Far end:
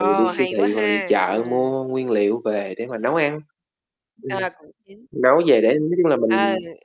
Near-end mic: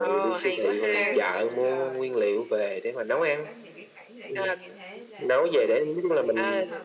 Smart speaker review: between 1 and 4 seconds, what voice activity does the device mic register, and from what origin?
both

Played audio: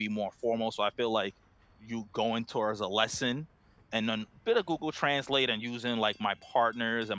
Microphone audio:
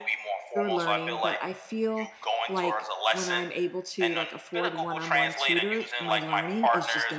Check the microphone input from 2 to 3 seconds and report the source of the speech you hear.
both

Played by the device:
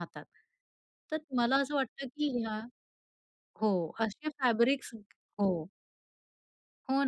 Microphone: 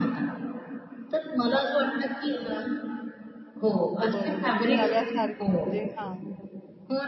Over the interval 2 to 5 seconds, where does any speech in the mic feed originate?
both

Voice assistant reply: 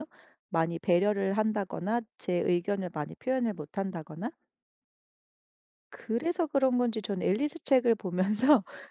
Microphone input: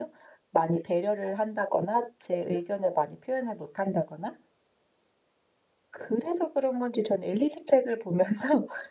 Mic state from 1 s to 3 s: echo only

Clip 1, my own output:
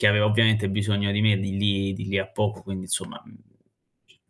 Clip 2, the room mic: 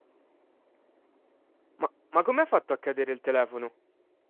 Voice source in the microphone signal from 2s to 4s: user only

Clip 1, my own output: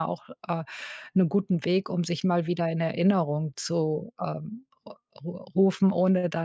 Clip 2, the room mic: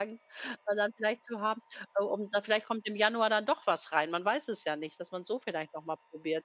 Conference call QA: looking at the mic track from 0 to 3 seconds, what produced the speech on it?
user only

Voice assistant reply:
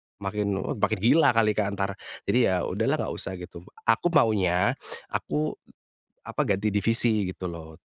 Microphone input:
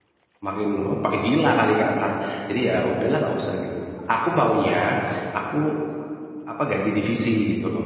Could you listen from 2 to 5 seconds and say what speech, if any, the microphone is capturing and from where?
echo only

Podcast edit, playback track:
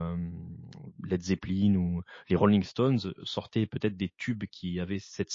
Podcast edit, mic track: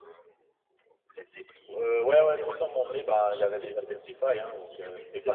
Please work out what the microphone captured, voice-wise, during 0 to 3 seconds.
both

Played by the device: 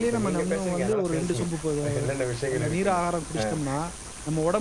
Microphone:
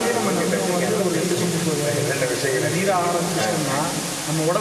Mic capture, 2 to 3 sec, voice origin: echo only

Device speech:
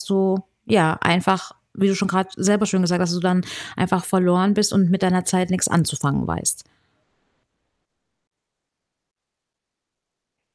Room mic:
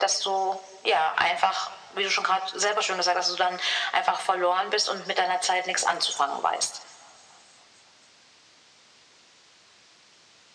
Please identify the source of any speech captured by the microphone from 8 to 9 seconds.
neither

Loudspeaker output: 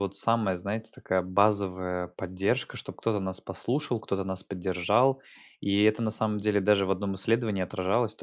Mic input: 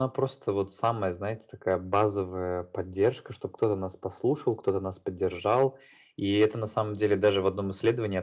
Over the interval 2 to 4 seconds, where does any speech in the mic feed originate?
echo only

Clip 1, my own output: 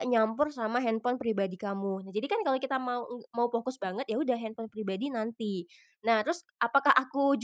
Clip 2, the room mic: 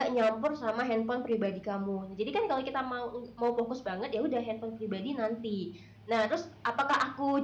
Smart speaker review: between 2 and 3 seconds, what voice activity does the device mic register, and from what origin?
echo only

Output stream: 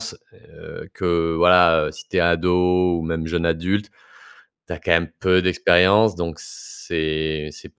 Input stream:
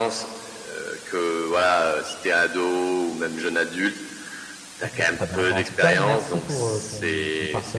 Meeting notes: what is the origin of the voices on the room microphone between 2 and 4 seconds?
echo only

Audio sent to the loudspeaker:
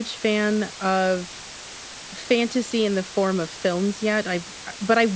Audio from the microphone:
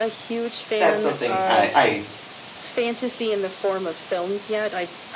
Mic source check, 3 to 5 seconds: echo only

